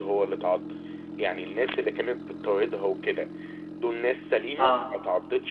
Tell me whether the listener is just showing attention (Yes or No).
Yes